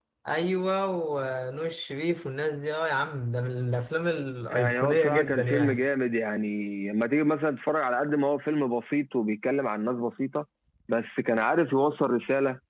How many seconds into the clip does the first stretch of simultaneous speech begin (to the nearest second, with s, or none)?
4 s